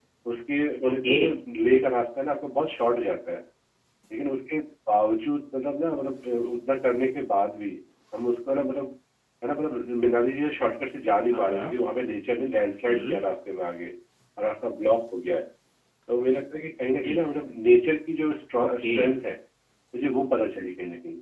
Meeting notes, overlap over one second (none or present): none